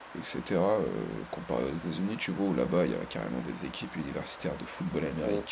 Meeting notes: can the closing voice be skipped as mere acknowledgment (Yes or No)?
Yes